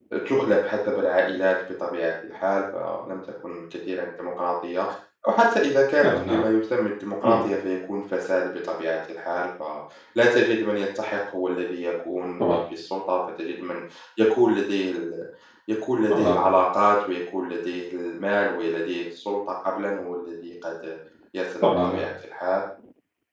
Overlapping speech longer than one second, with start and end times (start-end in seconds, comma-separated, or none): none